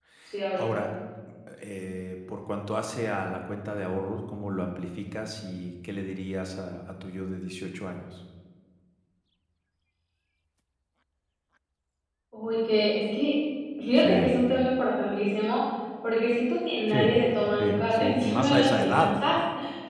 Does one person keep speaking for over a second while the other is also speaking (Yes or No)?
Yes